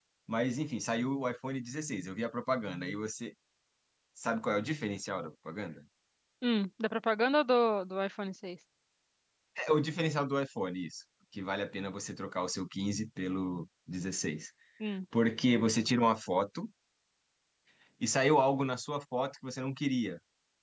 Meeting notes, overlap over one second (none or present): none